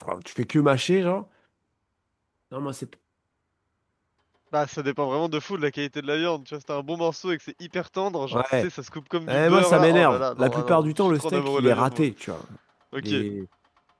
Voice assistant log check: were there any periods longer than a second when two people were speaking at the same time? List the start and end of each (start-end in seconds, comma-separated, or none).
9.3-12.1